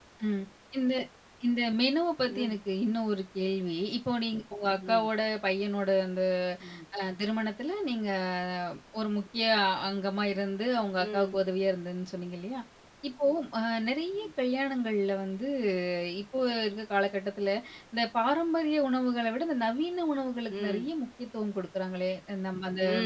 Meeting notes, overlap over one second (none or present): none